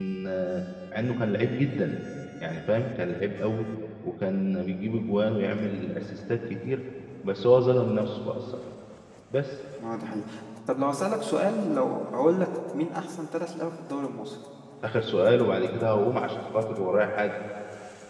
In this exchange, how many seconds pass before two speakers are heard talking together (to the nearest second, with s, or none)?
none